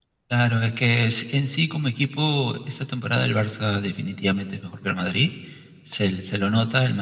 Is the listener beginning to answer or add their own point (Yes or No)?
No